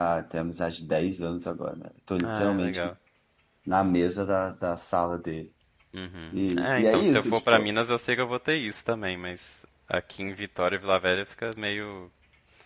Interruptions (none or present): present